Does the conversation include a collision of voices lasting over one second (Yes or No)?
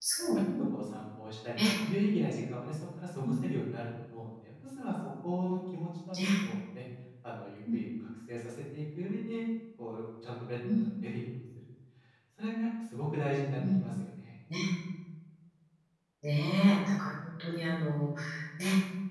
No